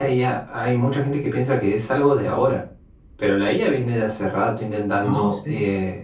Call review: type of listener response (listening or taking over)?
listening